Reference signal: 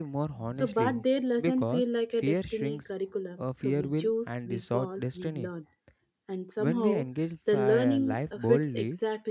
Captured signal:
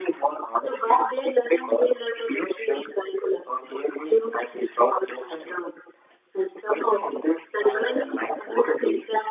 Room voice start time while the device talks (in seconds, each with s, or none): none